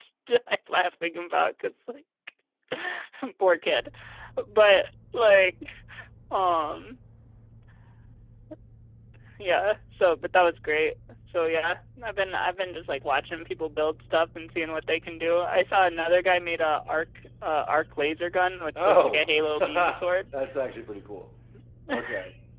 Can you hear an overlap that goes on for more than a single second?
Yes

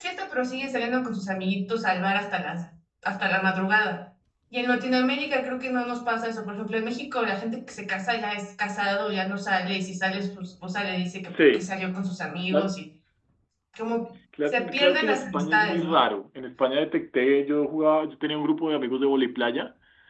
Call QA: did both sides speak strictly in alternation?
No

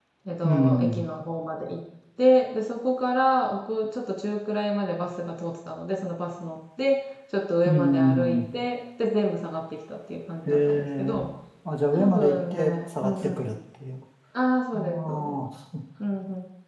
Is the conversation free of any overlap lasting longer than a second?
No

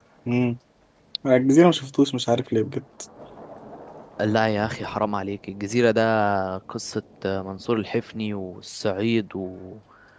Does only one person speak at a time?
Yes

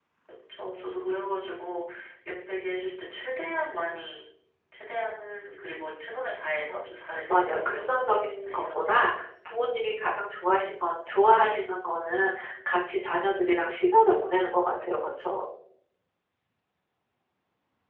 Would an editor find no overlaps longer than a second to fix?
No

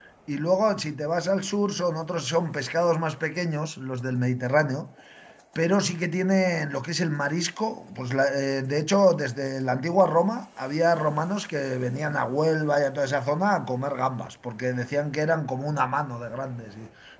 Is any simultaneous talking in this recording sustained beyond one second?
No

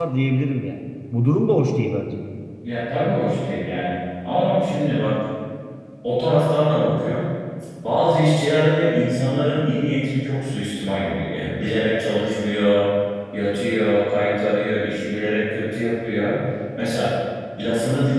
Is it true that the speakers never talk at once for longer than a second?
Yes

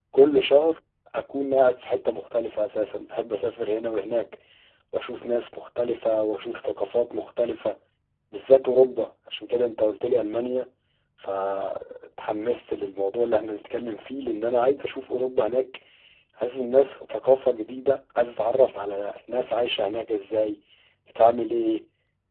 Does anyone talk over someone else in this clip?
No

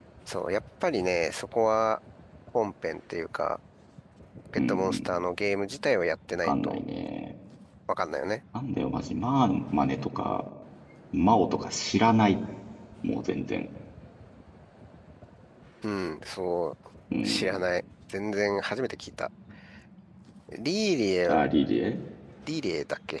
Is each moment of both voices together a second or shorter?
Yes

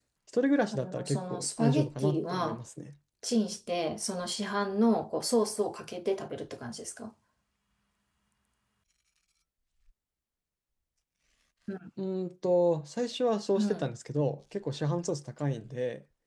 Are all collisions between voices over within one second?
No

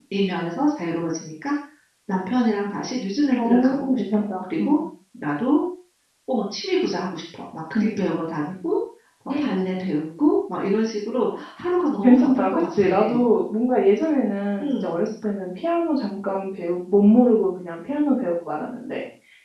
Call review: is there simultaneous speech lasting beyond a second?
Yes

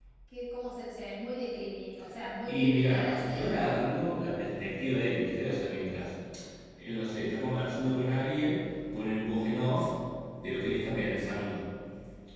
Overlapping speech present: Yes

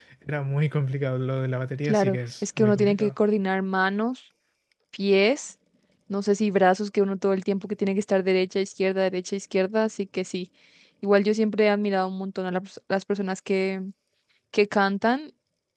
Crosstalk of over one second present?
Yes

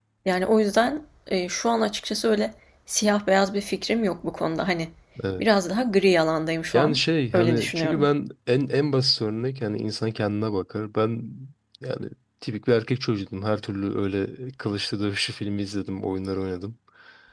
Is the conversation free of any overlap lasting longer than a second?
No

